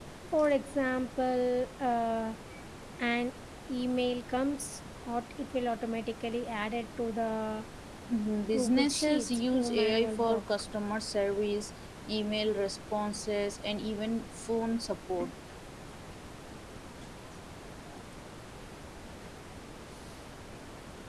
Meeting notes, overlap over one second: present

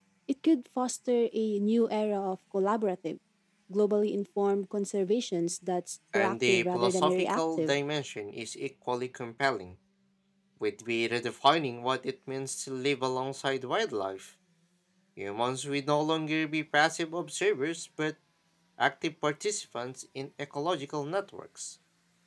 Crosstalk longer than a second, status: present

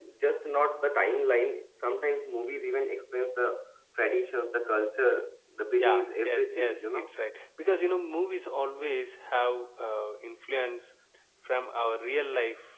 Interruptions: present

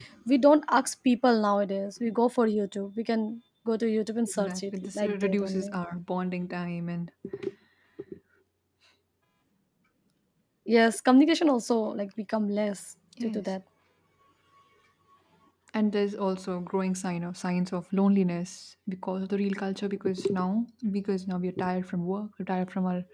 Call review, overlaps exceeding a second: present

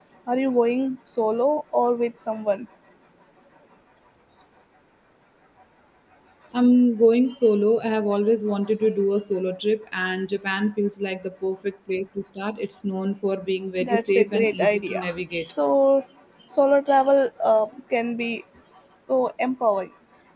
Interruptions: present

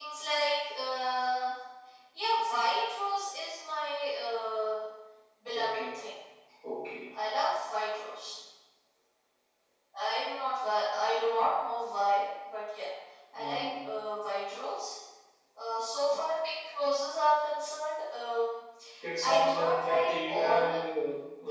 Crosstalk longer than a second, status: present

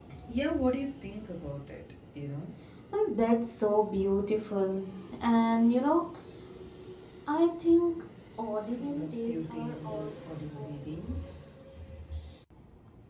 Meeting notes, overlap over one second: present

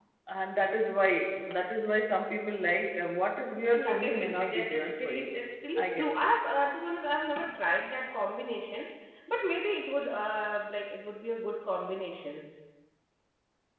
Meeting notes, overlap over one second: present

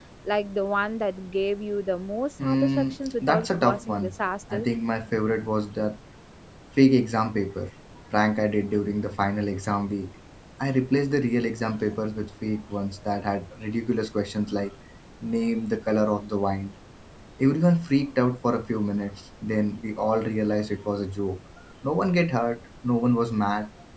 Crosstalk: present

